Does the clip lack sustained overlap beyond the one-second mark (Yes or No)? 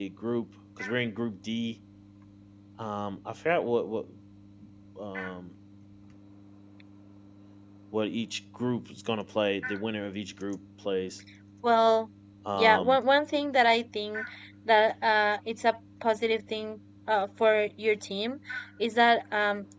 Yes